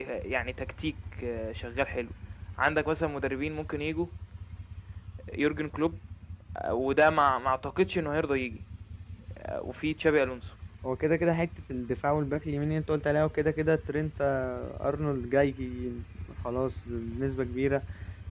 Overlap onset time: none

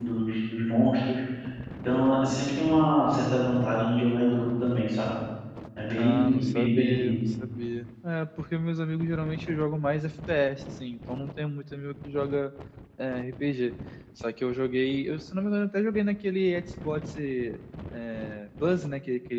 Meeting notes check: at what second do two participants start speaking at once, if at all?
6.0 s

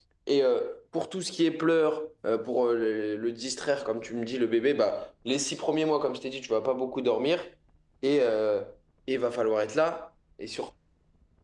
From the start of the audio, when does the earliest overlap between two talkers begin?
none

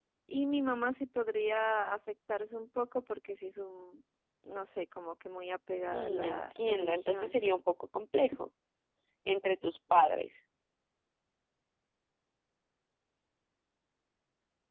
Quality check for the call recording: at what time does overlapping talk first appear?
5.8 s

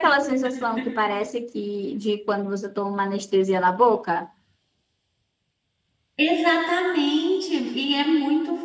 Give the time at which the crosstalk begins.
none

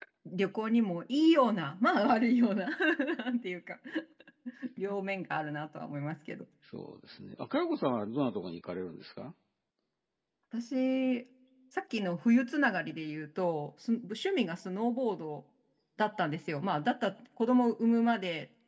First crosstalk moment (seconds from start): none

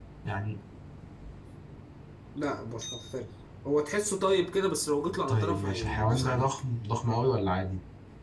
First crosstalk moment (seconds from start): 5.3 s

